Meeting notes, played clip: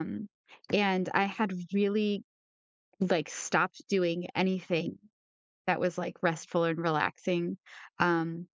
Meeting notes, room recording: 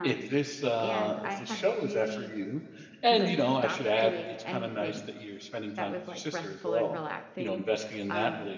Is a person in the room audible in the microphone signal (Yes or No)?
Yes